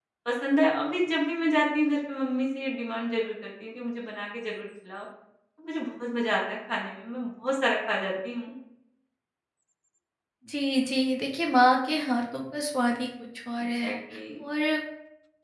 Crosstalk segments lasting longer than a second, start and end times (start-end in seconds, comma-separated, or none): none